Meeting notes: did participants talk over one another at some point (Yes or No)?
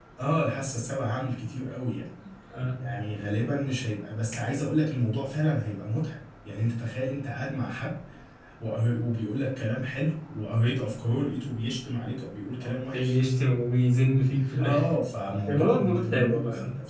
Yes